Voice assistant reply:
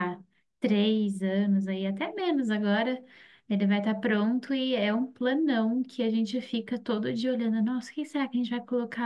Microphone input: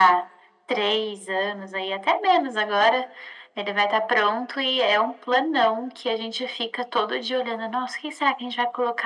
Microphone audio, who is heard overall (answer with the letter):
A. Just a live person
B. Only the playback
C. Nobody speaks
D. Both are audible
B